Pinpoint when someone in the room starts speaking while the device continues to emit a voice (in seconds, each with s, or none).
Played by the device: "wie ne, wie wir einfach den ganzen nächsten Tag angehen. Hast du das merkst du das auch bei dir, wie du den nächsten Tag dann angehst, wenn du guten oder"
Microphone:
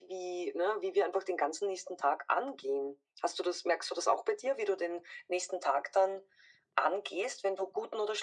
none